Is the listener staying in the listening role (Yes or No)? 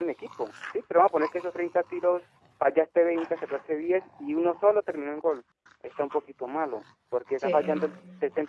Yes